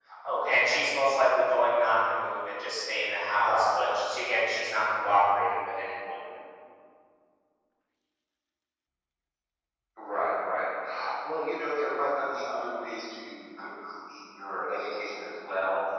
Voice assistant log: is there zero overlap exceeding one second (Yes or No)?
Yes